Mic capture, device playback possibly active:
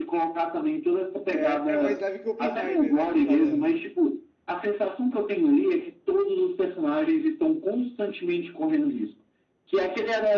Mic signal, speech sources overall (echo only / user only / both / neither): both